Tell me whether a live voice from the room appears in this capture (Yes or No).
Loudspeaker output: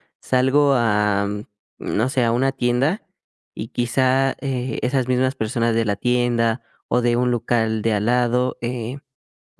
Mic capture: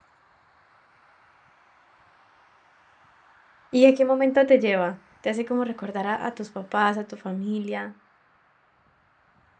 Yes